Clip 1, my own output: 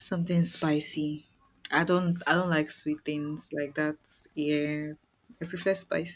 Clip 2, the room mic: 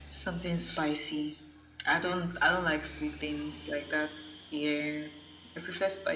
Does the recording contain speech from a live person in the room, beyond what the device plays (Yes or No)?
No